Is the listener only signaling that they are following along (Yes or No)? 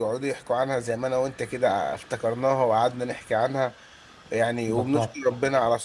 Yes